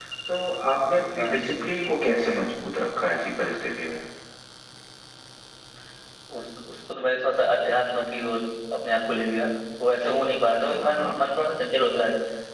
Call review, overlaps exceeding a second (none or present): none